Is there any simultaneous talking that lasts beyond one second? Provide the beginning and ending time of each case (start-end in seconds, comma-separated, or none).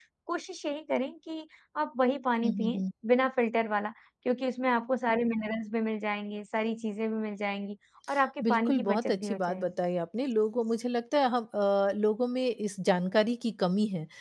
8.4-9.7